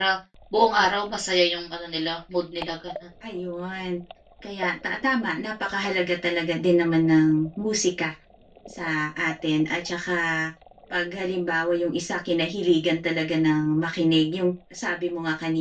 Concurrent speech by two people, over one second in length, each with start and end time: none

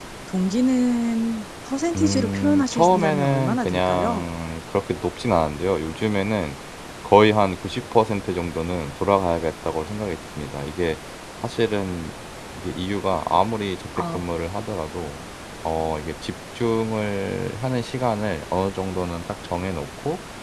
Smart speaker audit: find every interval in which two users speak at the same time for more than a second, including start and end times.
2.0-4.2

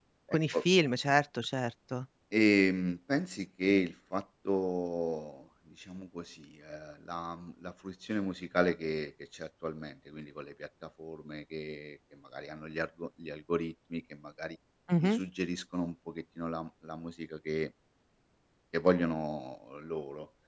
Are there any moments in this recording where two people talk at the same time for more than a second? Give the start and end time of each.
none

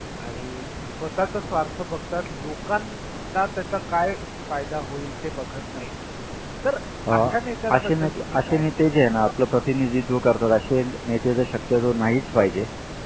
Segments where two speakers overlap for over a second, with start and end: 7.7-8.9

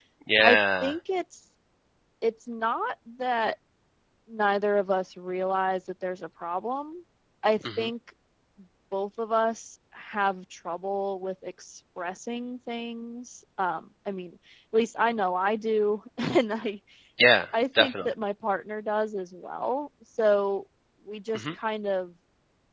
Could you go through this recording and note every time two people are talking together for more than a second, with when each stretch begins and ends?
none

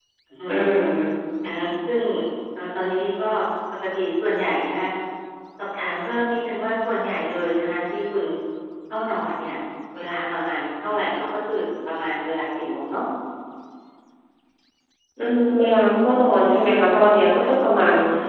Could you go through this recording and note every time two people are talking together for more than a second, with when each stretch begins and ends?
none

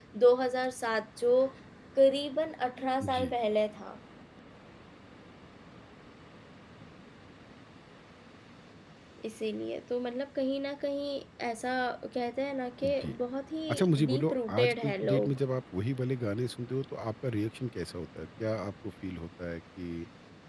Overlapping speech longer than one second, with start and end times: 13.7-15.4

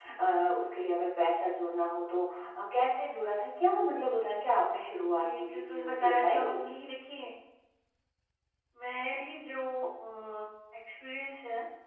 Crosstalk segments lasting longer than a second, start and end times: 5.2-6.6

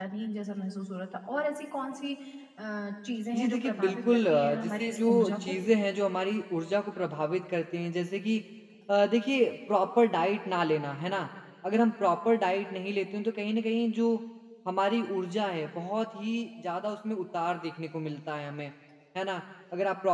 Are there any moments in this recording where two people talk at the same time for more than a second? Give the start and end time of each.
3.4-5.3

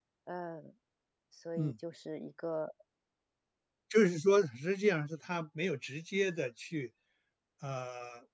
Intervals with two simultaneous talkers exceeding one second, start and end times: none

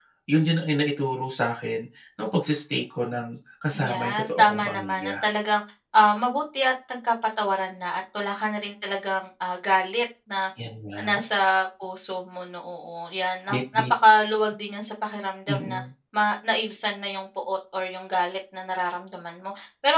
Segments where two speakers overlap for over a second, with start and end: 3.9-5.1

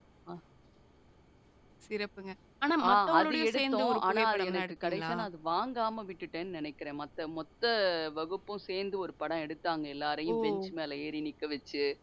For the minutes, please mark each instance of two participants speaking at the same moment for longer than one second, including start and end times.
2.9-5.1

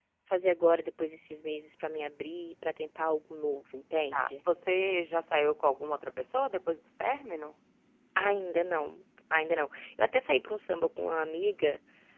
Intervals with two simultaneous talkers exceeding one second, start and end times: none

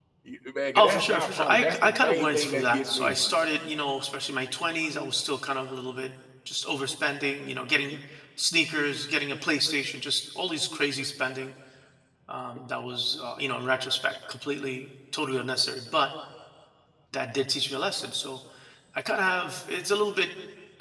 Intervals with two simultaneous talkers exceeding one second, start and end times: 0.8-3.1

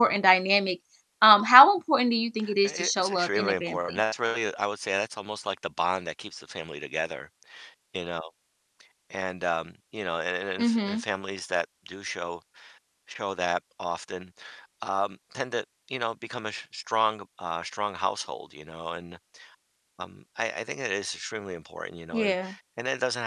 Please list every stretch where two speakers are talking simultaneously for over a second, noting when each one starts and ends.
2.6-4.0

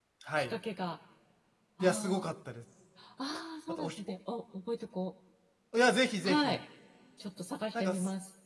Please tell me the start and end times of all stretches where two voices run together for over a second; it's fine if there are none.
none

